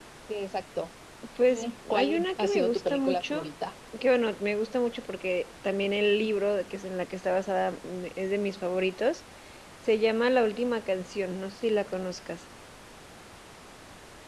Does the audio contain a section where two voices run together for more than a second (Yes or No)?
Yes